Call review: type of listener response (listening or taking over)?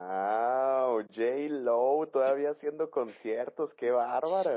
taking over